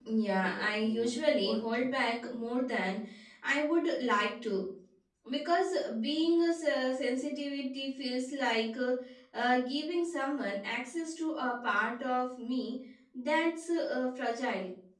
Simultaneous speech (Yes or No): Yes